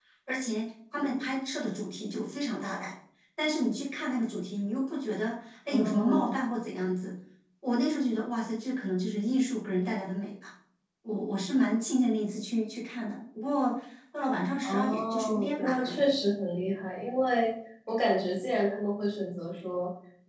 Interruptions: present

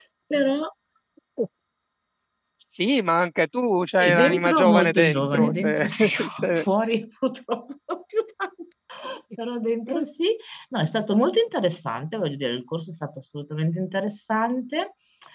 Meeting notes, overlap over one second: present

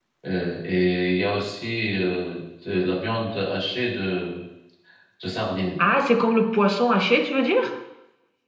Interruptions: none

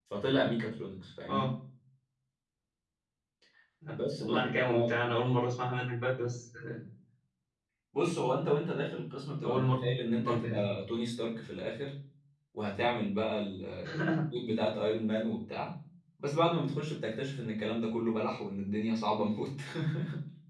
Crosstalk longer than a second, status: present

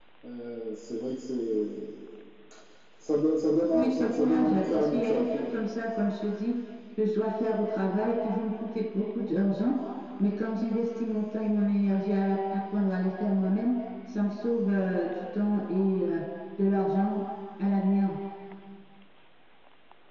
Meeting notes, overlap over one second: present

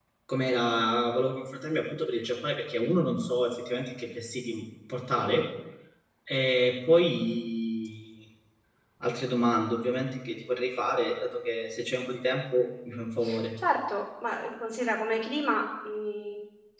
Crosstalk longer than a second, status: none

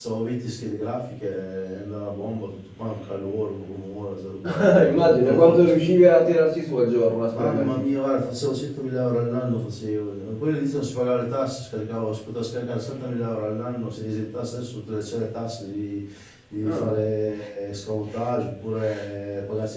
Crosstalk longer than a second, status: present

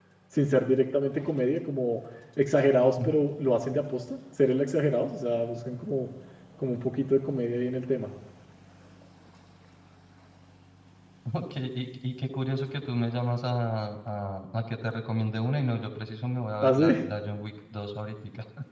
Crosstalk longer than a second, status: none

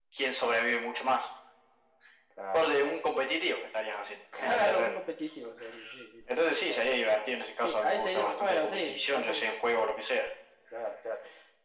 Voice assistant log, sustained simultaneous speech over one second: present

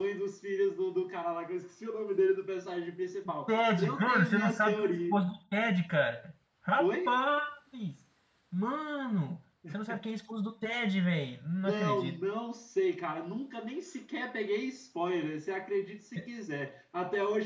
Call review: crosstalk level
present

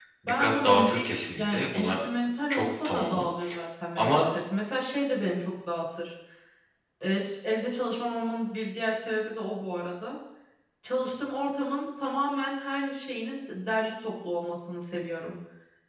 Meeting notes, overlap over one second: present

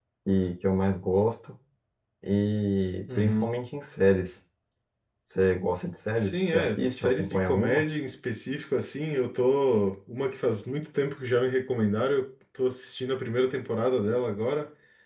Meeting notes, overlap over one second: present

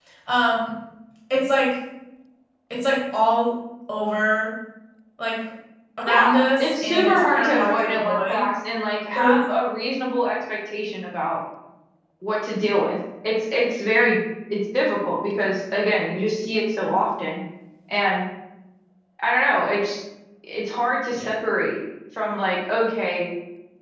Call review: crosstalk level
present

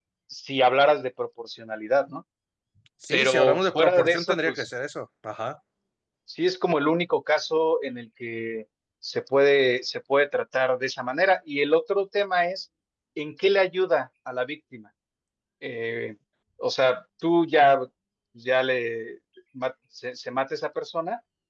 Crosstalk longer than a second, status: present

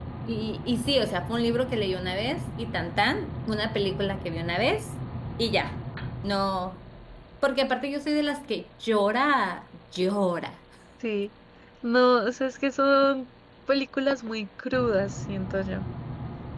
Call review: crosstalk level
none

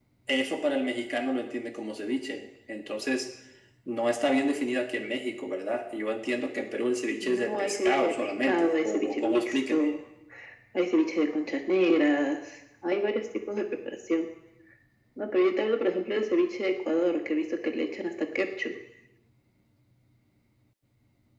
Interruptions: present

